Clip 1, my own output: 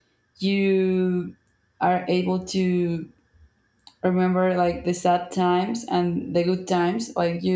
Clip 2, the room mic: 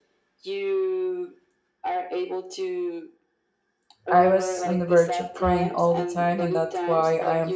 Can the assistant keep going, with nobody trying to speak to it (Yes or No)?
No